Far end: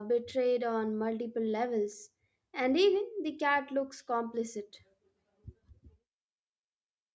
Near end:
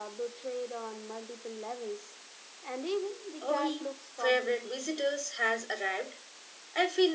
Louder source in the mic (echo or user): user